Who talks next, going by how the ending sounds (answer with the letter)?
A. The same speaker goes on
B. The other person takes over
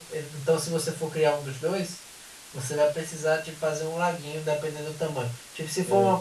A